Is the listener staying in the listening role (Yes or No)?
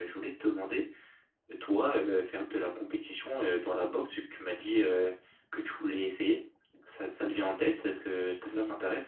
No